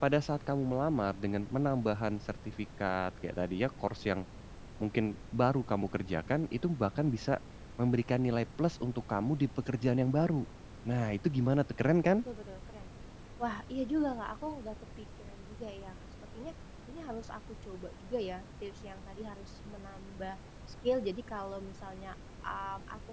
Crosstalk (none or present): none